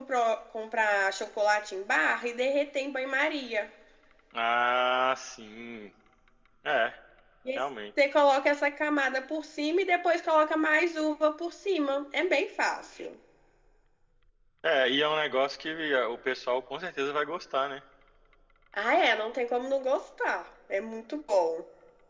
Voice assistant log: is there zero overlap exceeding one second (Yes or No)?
Yes